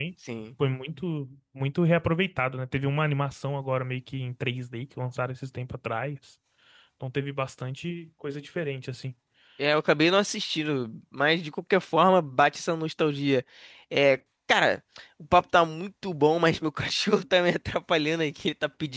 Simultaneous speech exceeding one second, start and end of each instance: none

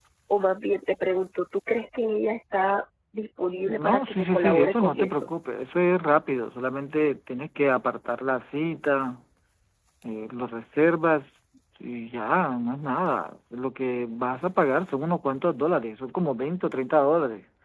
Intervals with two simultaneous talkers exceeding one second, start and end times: 3.7-5.3

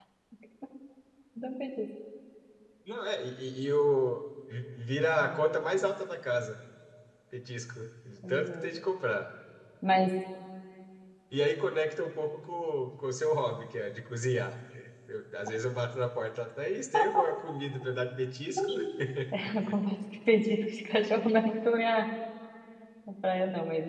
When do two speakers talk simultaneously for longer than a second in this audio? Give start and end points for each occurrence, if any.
none

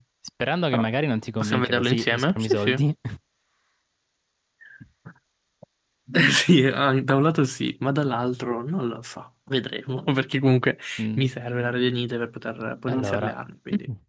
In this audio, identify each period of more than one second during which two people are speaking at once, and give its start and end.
1.4-2.8

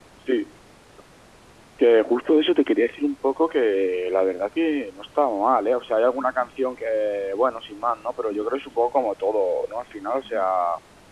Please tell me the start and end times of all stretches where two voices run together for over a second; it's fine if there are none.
none

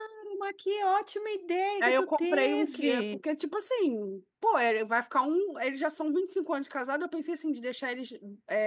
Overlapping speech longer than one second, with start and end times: 1.8-3.0

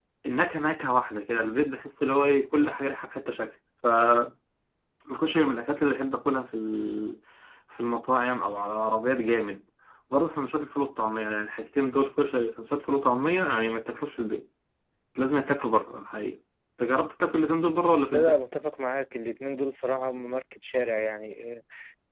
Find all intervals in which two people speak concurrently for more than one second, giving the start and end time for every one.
none

